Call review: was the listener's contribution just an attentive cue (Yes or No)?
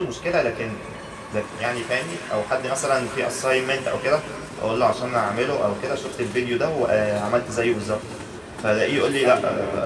Yes